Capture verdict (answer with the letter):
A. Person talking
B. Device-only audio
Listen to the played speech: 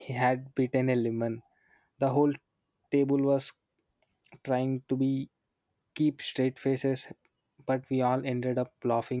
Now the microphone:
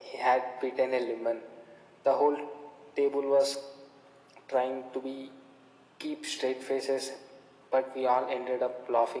B